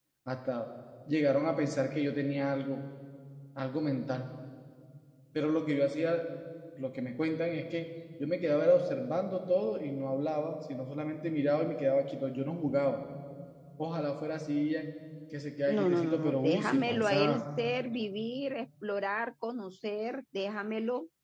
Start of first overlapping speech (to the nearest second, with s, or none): 16 s